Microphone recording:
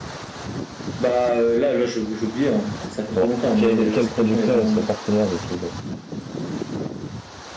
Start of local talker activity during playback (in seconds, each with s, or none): 3.1 s